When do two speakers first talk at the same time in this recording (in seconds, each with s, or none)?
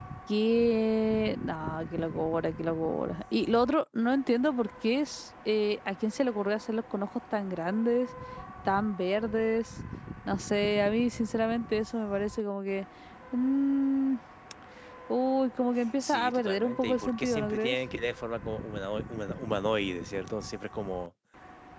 16.0 s